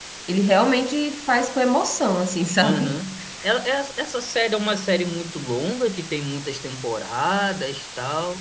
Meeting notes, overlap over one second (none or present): none